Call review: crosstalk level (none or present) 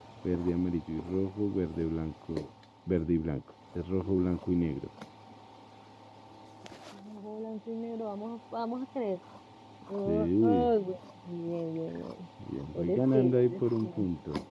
present